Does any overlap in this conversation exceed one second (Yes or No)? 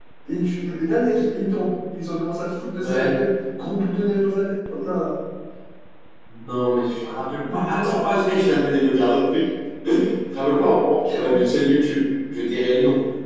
No